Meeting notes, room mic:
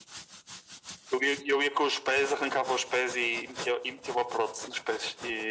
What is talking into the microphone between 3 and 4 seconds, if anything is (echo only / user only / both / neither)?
echo only